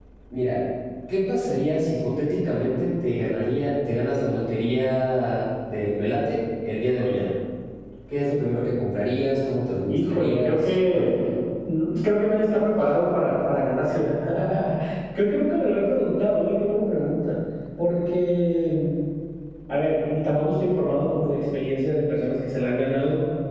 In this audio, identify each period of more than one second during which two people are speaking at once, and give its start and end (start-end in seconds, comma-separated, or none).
9.9-11.1